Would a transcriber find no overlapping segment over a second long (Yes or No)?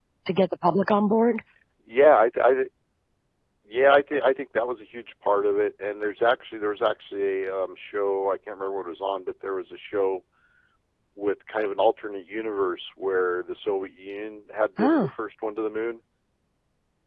Yes